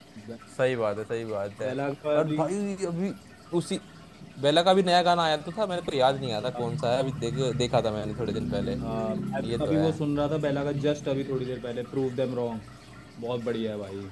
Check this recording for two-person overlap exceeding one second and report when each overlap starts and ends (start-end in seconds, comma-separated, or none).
none